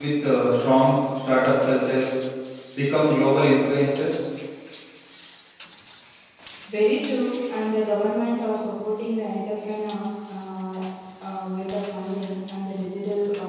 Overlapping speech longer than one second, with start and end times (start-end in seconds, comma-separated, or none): none